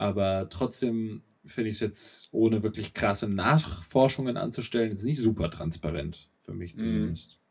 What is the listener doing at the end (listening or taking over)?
taking over